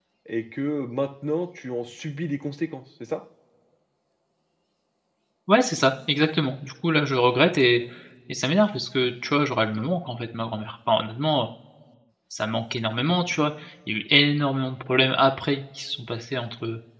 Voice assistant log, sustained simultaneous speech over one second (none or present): none